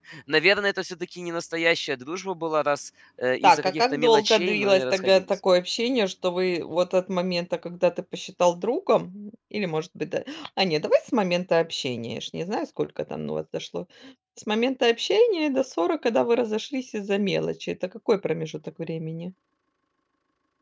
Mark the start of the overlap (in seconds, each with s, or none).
3.4 s